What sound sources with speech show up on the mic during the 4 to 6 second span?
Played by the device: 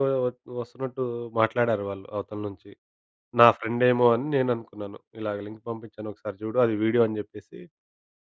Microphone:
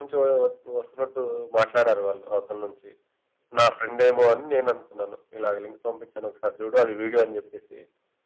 echo only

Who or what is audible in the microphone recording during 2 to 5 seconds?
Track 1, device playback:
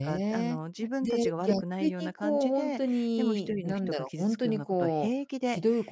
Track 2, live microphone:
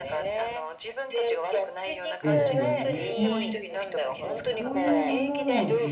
both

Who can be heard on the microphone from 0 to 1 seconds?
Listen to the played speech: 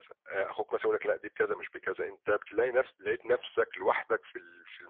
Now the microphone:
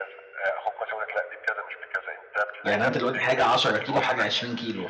echo only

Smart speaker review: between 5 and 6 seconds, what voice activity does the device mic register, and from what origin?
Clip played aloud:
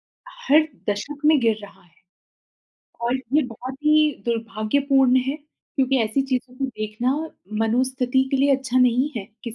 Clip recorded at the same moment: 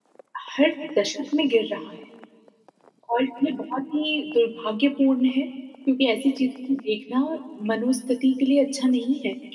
echo only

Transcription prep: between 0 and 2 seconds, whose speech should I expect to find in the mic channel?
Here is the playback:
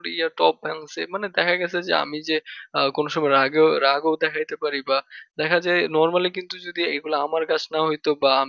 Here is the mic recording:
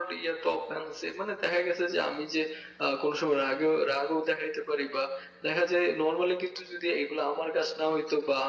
echo only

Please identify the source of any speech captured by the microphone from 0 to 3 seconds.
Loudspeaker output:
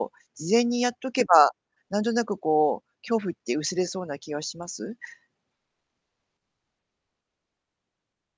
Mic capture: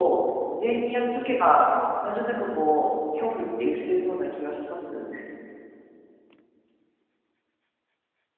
echo only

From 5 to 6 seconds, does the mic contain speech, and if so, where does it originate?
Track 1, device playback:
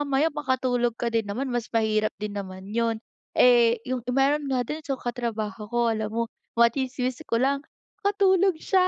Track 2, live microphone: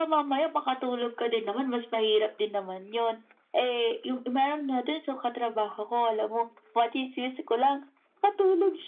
echo only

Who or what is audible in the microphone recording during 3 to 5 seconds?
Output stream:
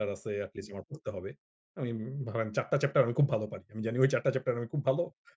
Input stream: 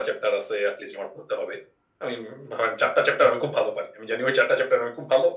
echo only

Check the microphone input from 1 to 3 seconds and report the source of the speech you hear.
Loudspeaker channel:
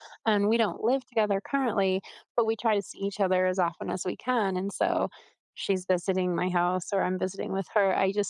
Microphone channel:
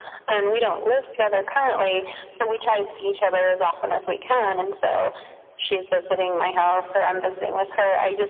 echo only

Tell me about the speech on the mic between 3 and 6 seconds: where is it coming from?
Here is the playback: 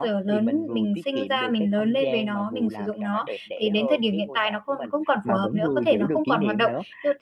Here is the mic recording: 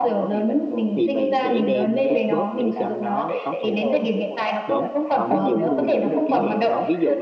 both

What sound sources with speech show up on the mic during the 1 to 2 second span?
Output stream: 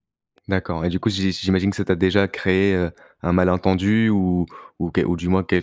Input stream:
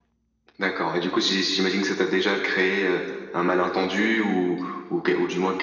echo only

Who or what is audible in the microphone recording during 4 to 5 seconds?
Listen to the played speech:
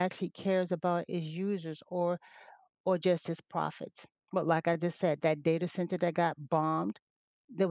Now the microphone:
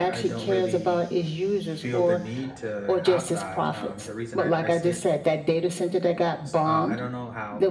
both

